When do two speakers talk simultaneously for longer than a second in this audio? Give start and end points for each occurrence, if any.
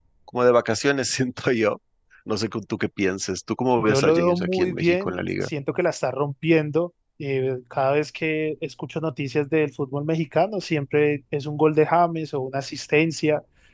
3.8-5.5

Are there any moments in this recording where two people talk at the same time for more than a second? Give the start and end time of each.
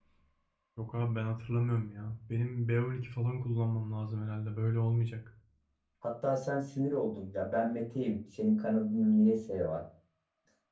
none

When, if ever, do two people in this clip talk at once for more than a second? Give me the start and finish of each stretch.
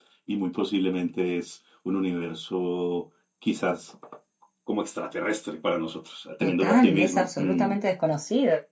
6.4-7.7

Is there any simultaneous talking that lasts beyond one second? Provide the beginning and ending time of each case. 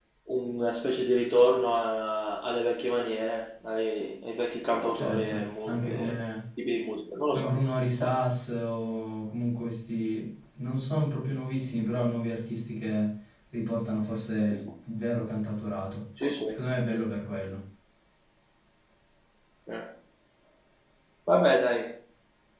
4.9-6.2

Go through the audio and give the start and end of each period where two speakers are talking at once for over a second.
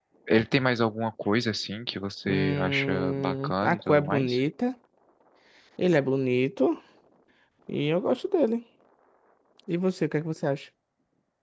2.2-4.4

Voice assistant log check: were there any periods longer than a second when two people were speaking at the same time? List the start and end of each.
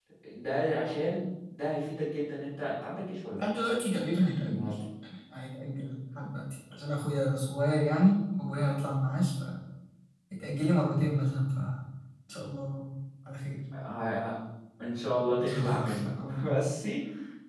15.3-16.5

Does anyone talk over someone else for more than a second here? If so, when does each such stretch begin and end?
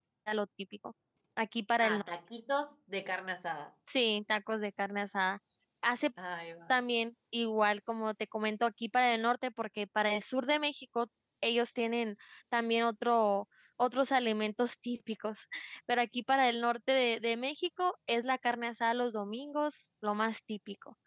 none

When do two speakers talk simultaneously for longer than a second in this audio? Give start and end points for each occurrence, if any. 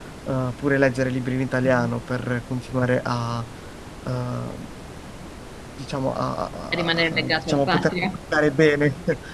6.7-8.0

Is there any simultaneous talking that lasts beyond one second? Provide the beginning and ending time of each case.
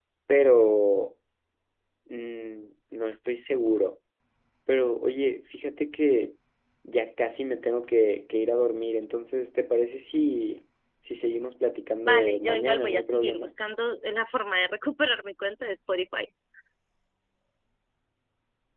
12.1-13.5

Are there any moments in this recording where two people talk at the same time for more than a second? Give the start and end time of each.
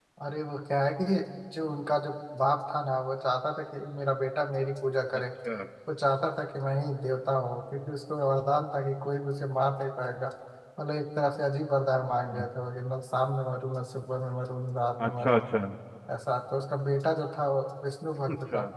none

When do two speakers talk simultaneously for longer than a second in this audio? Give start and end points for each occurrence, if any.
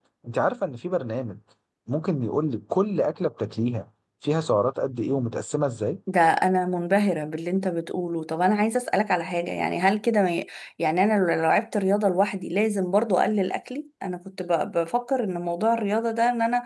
none

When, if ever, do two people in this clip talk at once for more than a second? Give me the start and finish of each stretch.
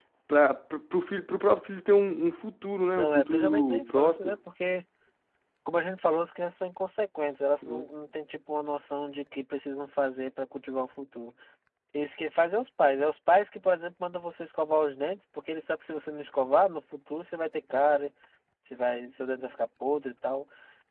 3.0-4.4

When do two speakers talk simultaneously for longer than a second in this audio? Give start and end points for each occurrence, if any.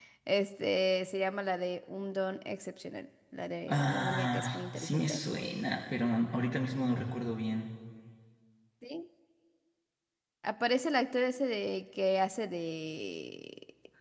3.7-5.2

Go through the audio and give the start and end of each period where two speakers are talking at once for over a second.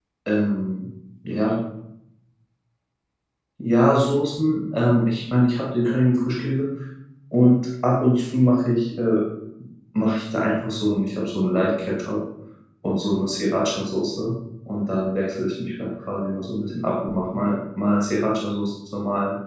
none

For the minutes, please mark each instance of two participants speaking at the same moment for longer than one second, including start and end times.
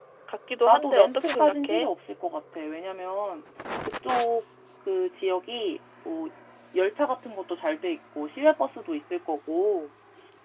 0.6-1.9

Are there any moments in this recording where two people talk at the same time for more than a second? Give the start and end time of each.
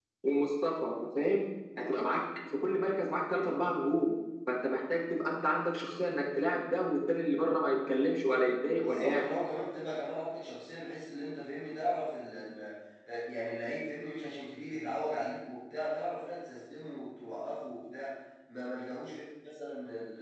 none

